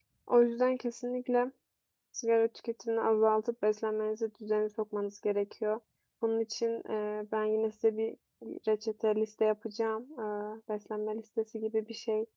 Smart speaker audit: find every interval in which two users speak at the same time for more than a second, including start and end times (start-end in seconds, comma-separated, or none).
none